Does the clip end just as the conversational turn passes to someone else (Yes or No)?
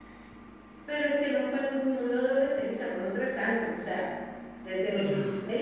No